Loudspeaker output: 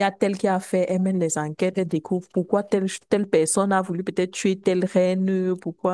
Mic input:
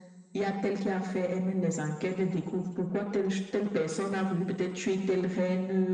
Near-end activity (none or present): none